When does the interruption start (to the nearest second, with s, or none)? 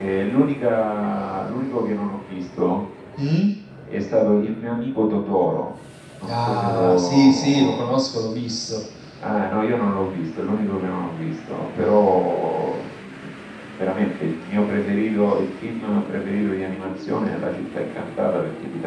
6 s